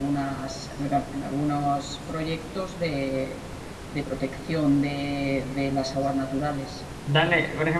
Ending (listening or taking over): taking over